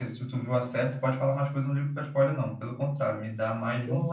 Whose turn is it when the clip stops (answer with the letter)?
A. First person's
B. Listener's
B